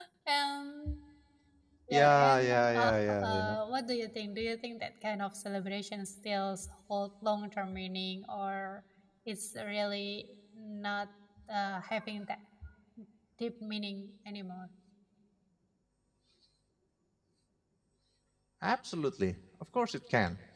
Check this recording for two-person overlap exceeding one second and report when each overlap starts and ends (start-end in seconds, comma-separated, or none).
1.9-3.4